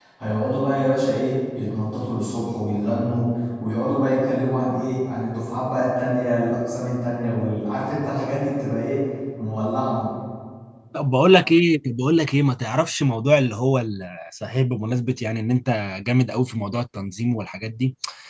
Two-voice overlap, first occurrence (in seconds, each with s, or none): none